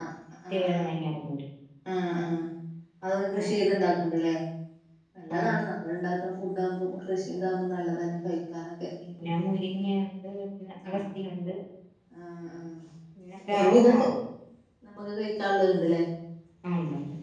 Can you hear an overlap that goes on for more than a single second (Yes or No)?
No